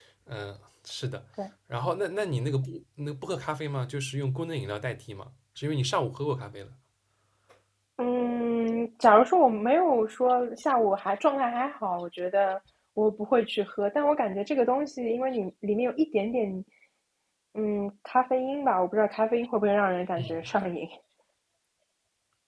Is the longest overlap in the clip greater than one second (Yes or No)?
No